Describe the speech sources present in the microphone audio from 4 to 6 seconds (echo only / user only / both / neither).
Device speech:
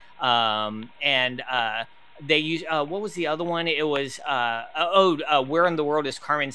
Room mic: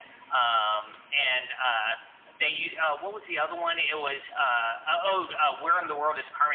echo only